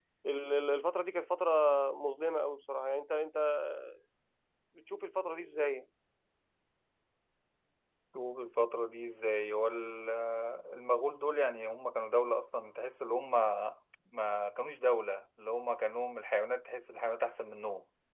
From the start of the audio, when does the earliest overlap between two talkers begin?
none

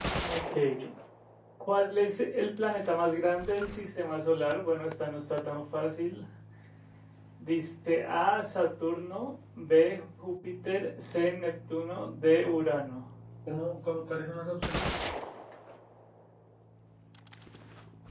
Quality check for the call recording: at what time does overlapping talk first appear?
none

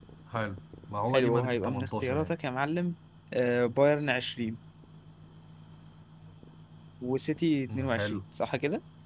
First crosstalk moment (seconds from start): 1.1 s

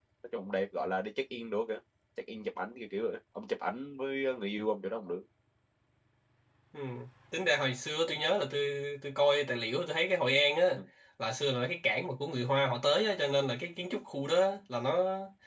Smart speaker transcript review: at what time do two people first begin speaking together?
none

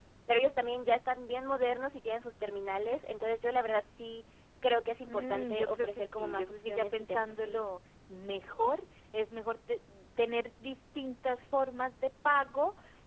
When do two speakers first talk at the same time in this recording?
5.1 s

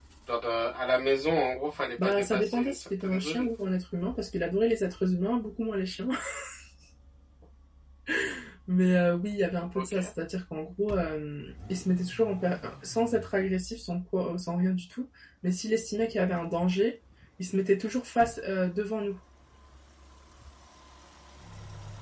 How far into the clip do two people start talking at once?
2.0 s

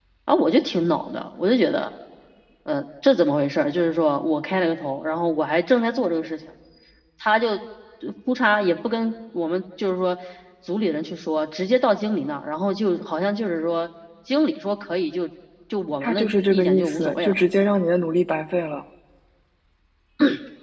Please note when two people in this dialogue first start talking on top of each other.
16.0 s

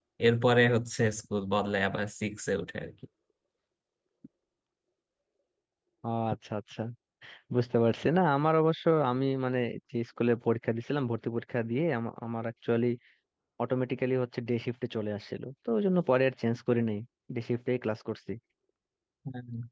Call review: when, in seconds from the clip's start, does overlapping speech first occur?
none

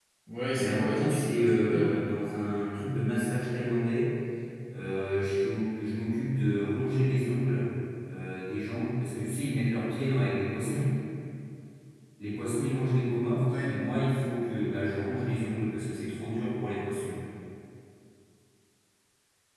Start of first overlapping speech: 0.5 s

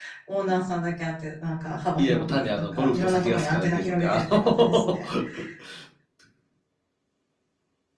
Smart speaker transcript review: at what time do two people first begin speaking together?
1.9 s

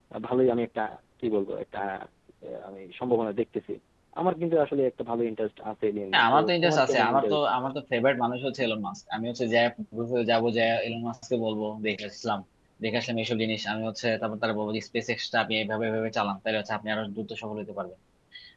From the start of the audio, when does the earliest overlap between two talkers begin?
6.1 s

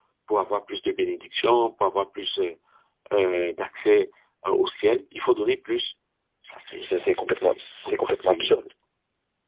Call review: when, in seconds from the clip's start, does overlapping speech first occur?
6.8 s

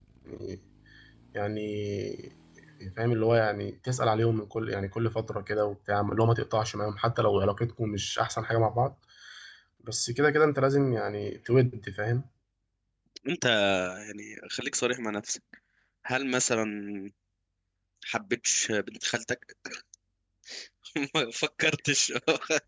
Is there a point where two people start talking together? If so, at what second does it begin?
none

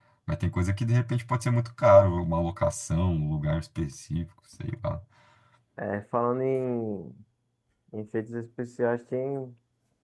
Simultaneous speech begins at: none

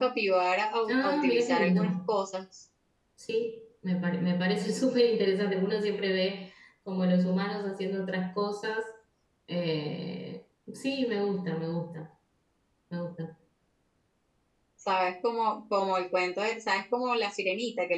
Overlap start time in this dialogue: 0.9 s

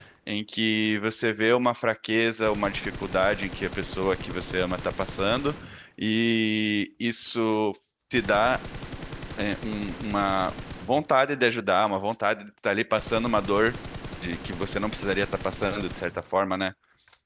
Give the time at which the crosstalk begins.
none

